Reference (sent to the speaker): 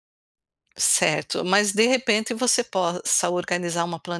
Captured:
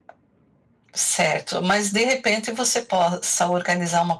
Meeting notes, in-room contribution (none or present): none